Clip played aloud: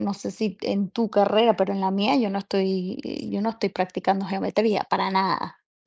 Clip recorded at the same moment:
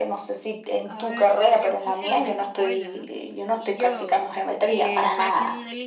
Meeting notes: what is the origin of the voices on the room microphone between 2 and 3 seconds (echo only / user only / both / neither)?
both